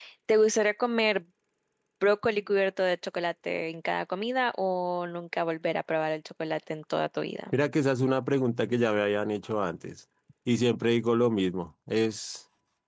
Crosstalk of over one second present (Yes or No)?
No